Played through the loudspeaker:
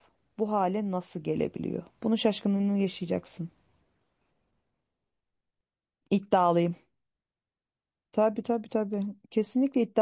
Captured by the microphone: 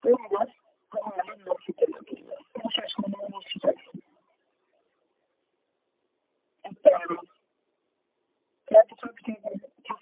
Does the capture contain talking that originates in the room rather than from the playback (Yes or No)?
No